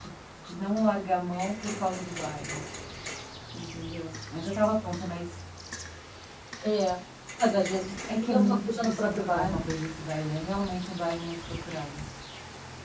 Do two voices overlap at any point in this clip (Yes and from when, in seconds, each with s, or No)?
Yes, from 8.2 s